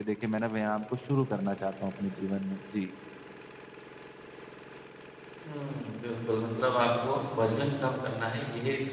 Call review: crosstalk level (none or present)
none